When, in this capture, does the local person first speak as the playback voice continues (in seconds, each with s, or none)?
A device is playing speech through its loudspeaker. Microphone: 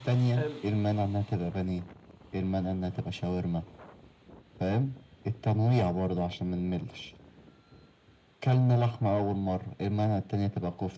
0.4 s